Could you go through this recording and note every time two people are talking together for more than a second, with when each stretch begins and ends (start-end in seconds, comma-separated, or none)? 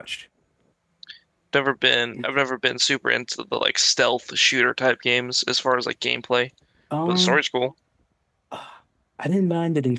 none